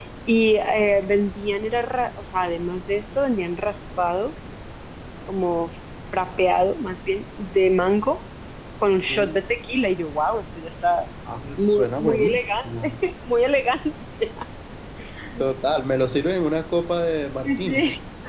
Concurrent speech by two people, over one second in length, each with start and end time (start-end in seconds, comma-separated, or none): 11.6-12.9